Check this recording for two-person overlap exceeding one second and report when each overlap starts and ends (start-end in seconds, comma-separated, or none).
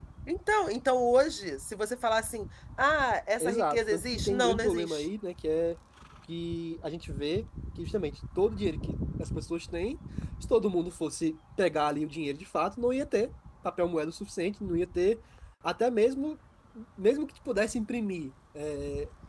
3.4-5.1